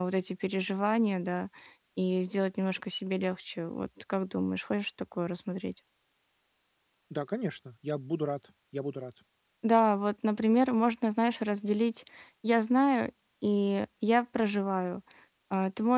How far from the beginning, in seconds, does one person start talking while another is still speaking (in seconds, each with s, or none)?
none